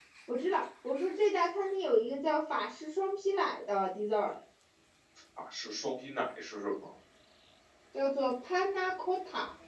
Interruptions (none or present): none